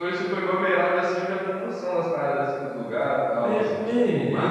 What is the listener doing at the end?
taking over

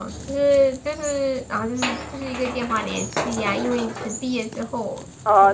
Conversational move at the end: taking over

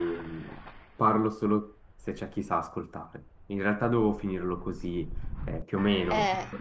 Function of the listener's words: listening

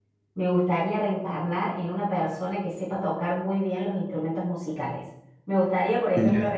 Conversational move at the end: listening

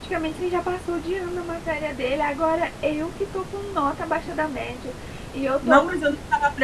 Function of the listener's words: taking over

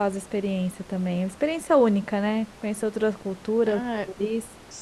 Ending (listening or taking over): taking over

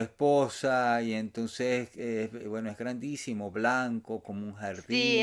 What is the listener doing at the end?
taking over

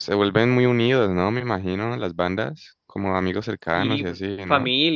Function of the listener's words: taking over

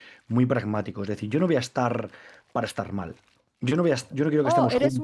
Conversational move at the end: taking over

